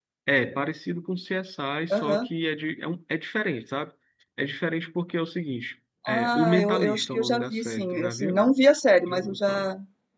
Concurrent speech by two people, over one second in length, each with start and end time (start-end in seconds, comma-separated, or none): 6.1-8.5